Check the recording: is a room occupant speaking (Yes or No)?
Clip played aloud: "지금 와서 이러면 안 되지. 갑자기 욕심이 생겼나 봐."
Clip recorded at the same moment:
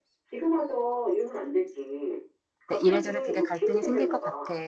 Yes